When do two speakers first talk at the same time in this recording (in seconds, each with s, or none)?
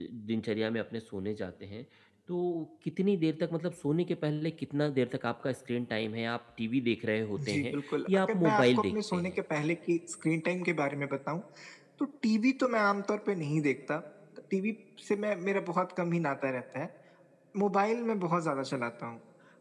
7.4 s